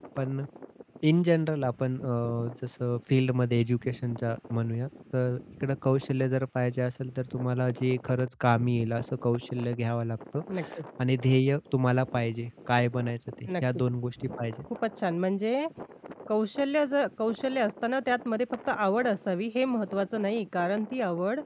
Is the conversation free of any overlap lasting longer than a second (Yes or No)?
Yes